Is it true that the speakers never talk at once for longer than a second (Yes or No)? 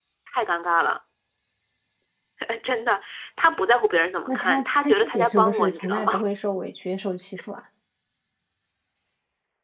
No